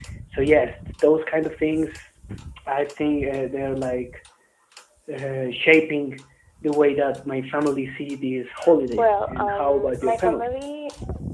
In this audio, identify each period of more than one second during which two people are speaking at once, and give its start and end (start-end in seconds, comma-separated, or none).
9.0-10.4